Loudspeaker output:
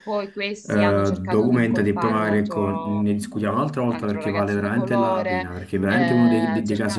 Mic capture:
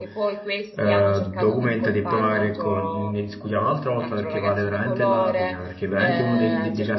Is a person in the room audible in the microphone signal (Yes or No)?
No